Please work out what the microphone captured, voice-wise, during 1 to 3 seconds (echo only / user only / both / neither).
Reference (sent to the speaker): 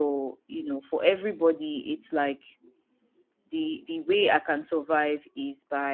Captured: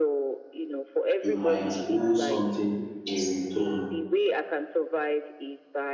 both